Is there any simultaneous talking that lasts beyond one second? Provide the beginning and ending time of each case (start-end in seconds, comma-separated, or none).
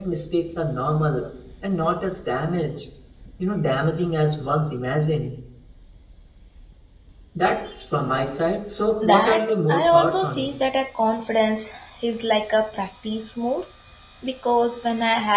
9.0-10.5